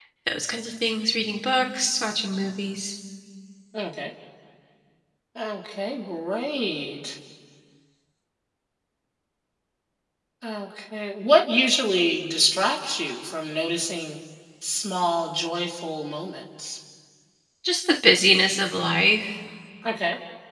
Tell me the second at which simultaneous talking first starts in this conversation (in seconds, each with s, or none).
none